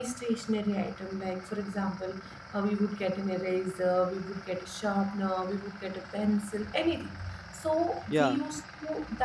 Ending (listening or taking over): listening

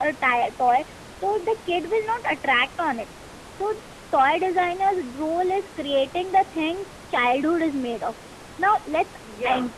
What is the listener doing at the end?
listening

